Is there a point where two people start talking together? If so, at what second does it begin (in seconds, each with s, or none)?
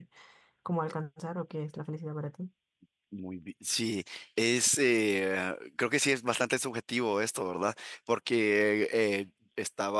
none